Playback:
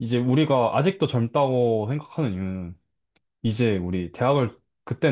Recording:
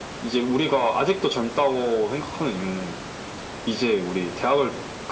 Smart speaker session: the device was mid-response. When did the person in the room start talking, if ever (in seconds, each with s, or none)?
none